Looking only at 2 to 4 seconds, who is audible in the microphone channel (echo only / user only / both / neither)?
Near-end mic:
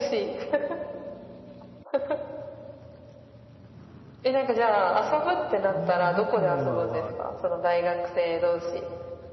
neither